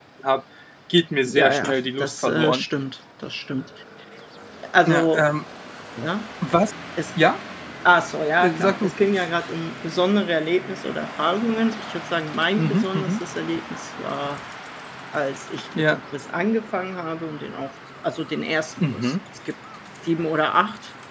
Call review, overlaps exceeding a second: present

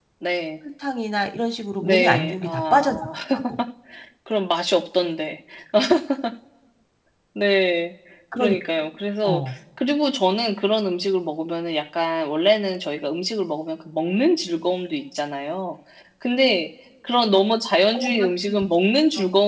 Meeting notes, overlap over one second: present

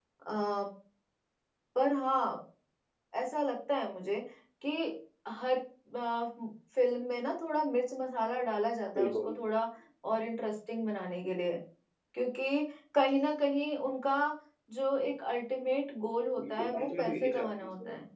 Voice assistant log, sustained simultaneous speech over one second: present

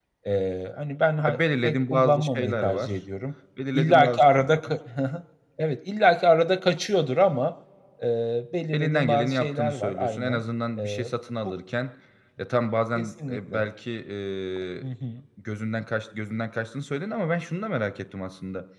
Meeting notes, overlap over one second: present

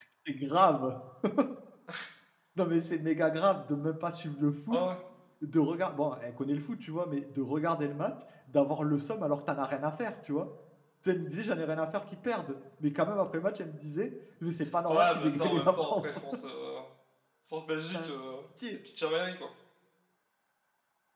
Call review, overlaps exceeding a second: present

